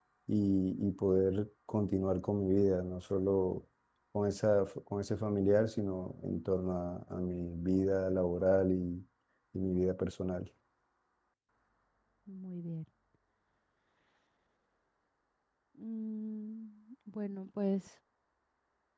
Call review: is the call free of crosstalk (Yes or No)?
Yes